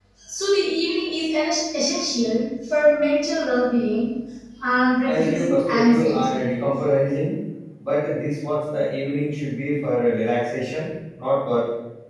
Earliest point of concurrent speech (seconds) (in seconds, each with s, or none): 5.0 s